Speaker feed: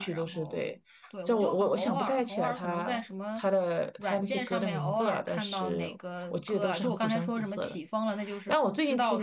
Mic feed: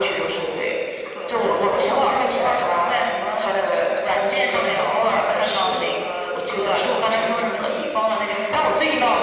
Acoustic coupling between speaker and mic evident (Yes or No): Yes